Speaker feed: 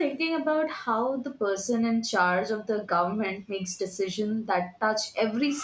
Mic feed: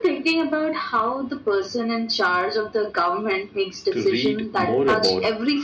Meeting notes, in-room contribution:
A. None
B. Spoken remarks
B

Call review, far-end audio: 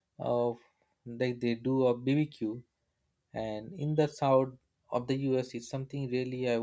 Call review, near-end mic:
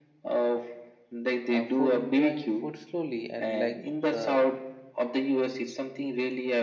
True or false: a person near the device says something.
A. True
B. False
A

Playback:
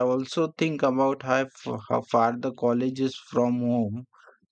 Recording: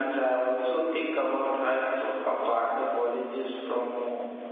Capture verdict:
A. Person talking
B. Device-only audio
B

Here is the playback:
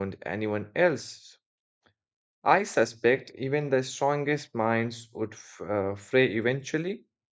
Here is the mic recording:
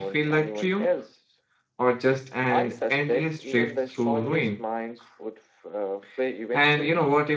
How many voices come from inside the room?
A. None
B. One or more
B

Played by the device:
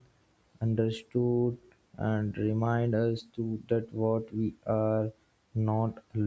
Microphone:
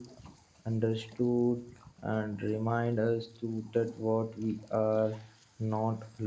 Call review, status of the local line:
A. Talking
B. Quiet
B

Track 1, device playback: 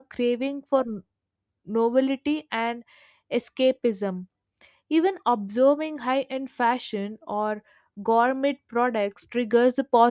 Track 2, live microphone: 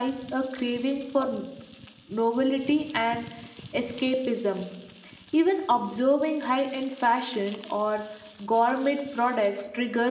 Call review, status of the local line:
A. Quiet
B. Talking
A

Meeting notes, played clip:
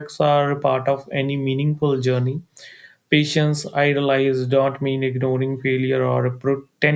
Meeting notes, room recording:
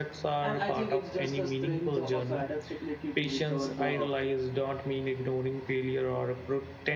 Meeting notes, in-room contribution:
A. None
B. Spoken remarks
B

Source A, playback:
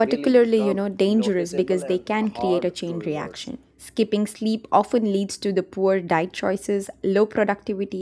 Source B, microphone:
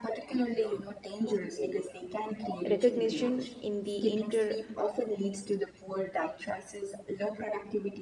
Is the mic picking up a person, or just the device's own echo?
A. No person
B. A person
B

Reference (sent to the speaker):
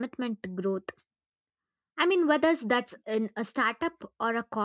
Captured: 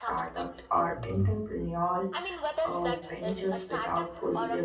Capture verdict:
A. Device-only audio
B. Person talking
B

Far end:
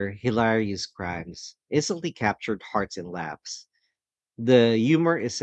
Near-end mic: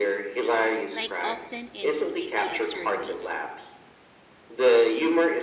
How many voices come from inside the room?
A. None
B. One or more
B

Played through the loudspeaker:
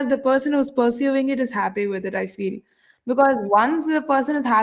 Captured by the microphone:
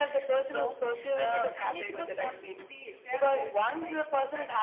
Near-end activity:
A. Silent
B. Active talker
B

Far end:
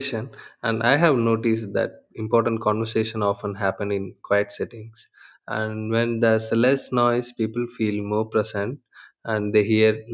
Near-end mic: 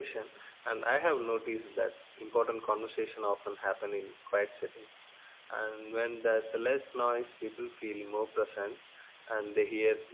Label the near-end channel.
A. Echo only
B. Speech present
A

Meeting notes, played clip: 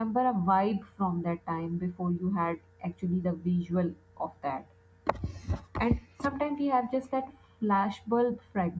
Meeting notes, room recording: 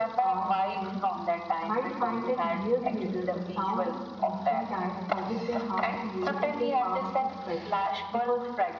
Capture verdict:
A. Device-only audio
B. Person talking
B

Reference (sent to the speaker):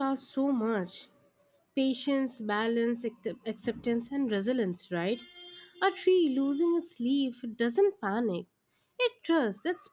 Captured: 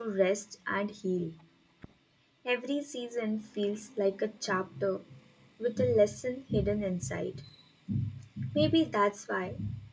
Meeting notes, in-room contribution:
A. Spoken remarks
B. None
A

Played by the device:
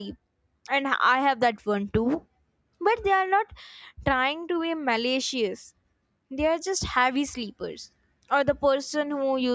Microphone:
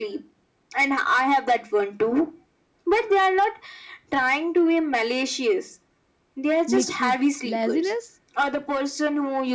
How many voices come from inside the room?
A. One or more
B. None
A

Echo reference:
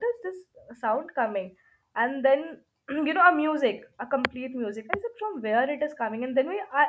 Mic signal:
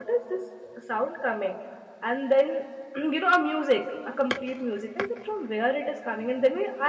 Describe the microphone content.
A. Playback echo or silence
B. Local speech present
A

